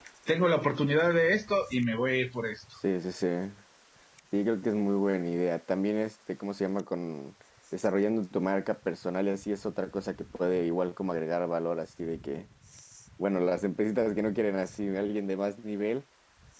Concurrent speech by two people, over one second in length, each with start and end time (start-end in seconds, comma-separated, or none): none